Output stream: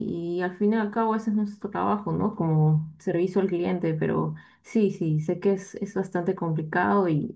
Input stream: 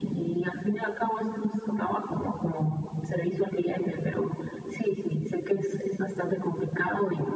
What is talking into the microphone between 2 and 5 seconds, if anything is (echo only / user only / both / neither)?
echo only